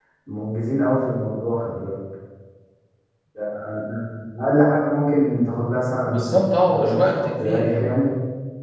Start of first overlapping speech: 6.1 s

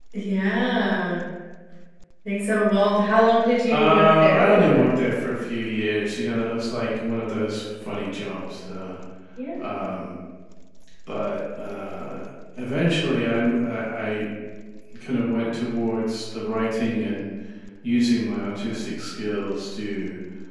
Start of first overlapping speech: 3.7 s

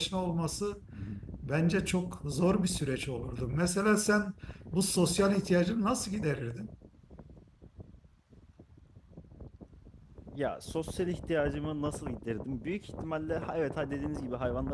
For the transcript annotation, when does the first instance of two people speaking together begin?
none

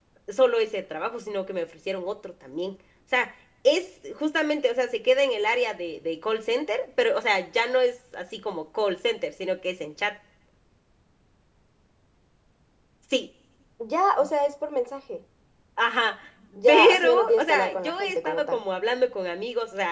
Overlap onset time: 16.7 s

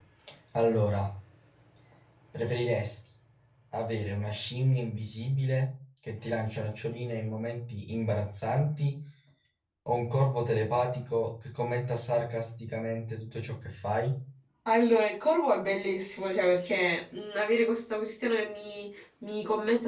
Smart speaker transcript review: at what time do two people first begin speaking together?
none

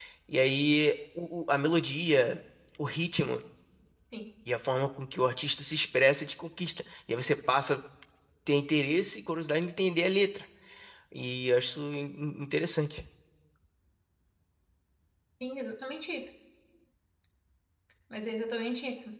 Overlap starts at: none

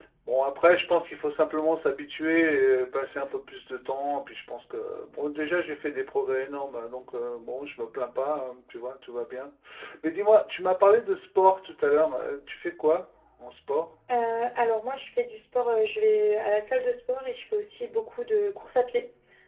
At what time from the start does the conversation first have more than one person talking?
none

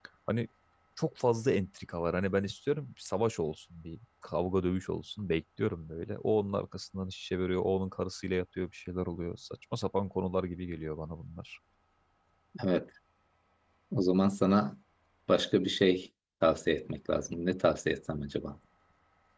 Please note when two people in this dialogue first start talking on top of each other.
none

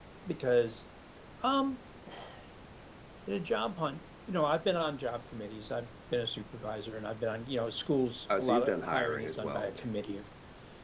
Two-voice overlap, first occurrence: 8.3 s

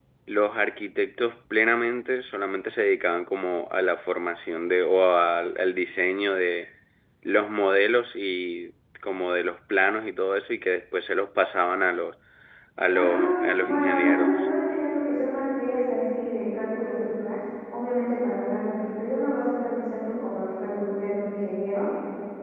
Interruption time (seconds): 12.9 s

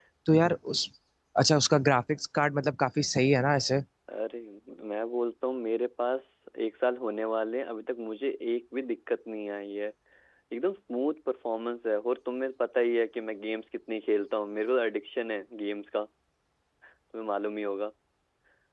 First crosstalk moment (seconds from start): none

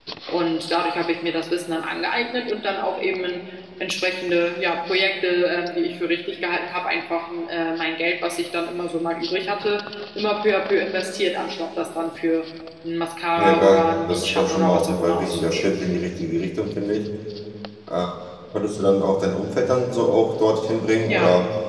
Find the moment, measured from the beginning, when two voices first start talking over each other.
13.4 s

